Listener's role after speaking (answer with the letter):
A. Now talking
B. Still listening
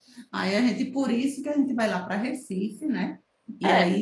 A